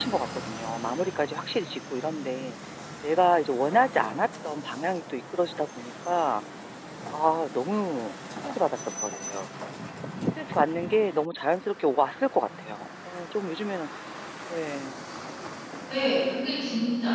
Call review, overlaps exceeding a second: none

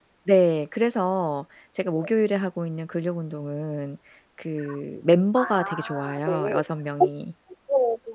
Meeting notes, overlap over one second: present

